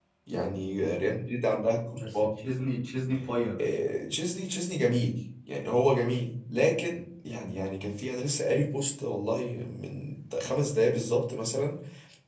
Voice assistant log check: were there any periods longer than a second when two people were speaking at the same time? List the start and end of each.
none

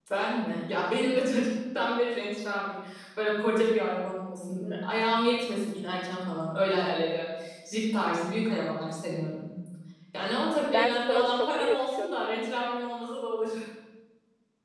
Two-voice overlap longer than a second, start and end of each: 10.7-12.2

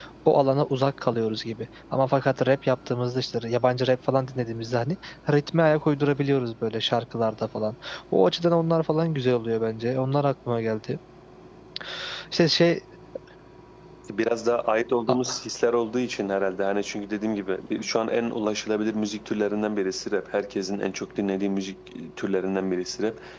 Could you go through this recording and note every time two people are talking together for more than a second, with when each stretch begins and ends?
none

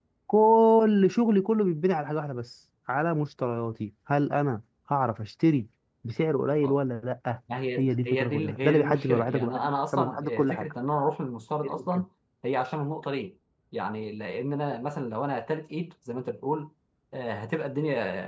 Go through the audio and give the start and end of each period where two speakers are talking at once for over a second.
7.8-10.7

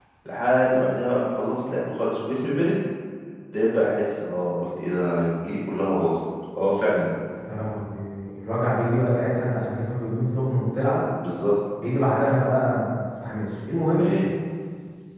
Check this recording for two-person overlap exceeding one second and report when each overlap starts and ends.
none

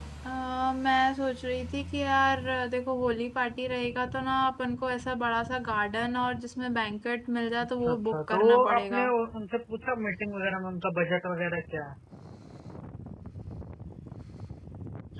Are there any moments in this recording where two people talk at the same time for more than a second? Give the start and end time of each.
7.8-9.1

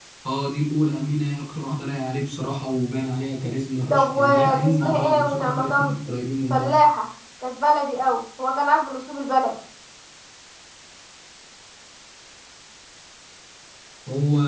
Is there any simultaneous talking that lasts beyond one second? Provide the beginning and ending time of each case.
3.9-5.9

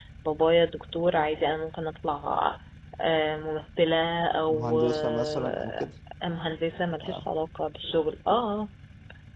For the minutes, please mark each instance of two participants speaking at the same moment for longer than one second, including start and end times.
4.5-5.8

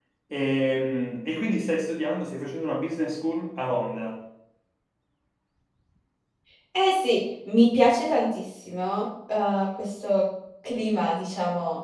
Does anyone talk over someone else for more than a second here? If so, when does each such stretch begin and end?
none

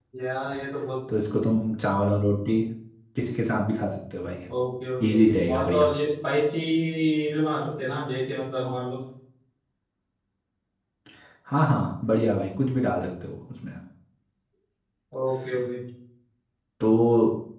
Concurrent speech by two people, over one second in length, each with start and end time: none

